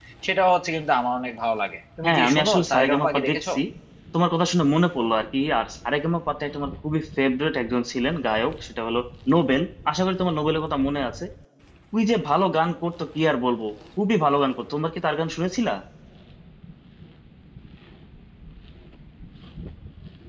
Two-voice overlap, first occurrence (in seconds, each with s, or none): 2.0 s